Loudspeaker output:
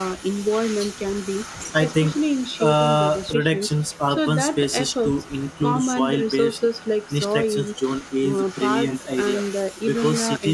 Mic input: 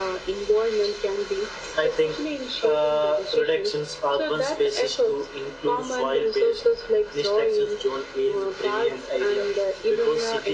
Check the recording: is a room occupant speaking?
No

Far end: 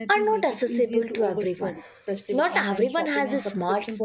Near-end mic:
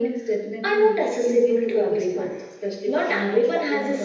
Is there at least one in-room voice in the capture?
No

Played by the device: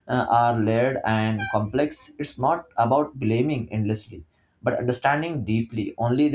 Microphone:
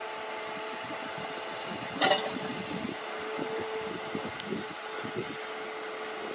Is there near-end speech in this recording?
No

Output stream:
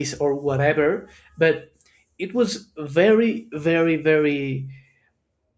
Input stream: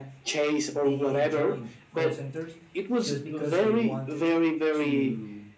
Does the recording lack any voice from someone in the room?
No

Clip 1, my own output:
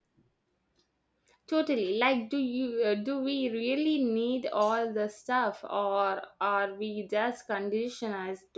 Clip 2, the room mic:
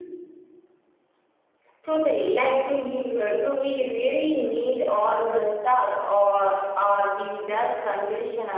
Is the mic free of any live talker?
Yes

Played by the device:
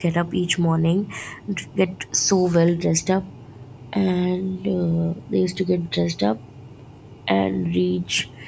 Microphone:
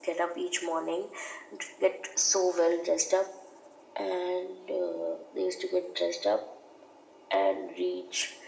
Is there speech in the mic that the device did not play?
No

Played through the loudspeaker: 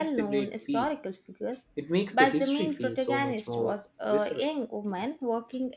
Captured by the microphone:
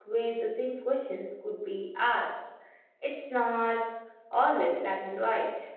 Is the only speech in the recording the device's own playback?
No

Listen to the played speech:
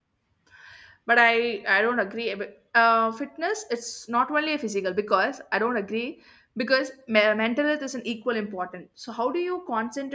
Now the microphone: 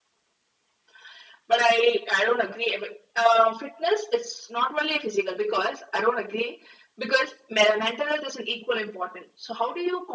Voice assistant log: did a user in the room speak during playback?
No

